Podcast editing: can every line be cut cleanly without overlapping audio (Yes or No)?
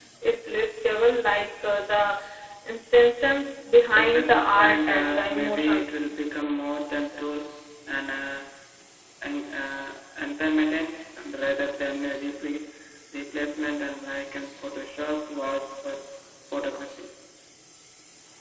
No